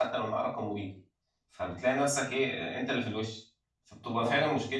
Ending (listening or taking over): listening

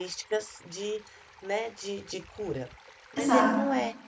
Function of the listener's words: listening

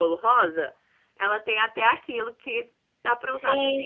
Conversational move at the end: taking over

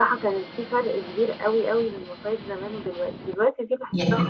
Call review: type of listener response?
listening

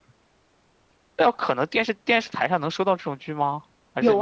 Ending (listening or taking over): taking over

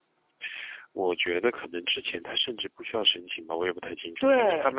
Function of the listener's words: listening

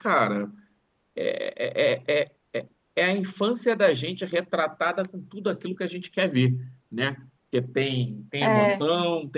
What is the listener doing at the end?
listening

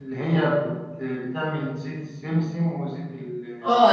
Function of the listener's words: taking over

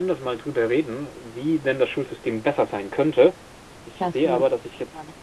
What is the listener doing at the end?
listening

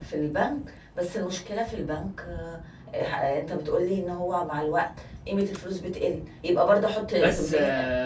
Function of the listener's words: taking over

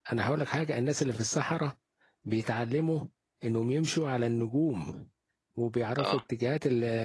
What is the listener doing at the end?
listening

